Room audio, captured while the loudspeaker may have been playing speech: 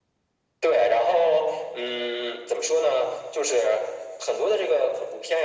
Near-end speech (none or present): none